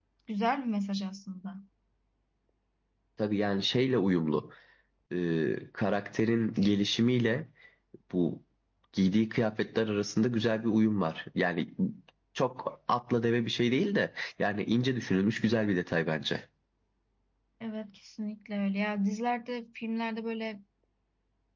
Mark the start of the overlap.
none

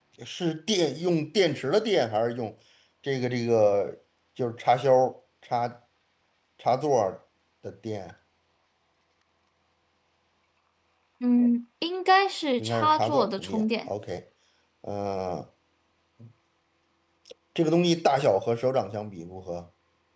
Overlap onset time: 12.6 s

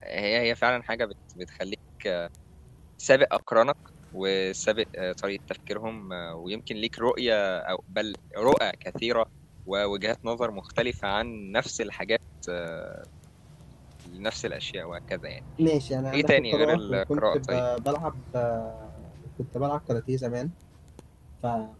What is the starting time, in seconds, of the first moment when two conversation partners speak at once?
16.1 s

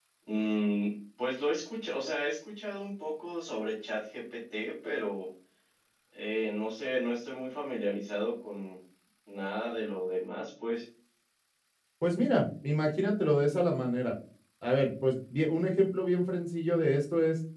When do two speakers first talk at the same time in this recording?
none

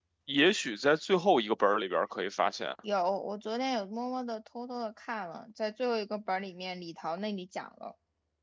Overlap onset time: none

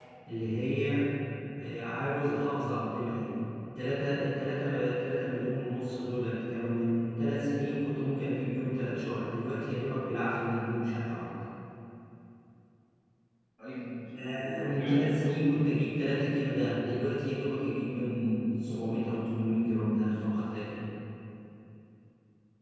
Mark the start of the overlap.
14.1 s

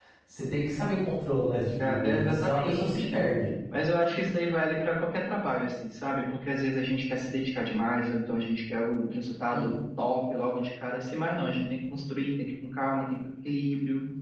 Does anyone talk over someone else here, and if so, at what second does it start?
1.8 s

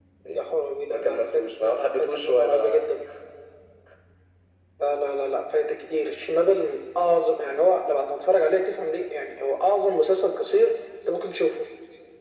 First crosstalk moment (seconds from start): 0.9 s

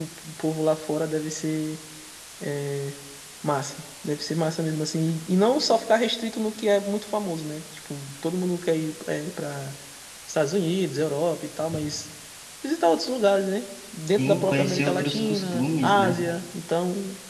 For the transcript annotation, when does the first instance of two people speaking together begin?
14.2 s

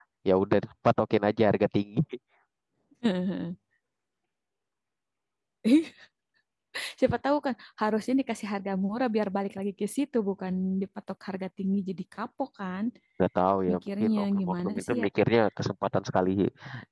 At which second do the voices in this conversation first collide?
13.7 s

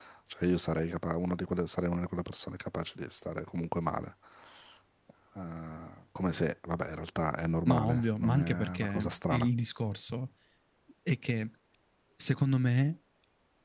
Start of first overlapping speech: 7.7 s

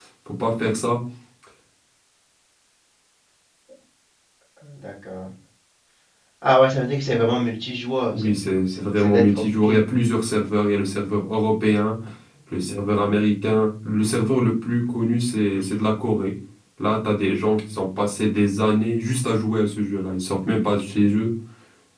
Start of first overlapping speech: 8.1 s

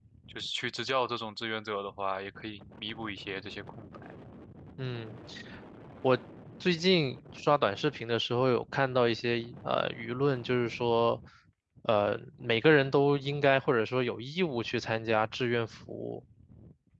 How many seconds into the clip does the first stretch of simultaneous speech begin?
none

